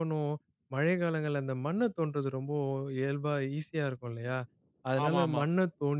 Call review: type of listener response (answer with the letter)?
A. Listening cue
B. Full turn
A